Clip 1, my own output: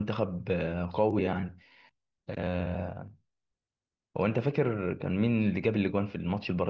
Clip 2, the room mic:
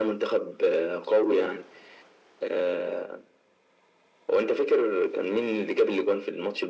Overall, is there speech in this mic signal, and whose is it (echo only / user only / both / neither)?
echo only